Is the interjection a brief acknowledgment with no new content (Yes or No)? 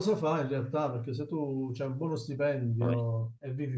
Yes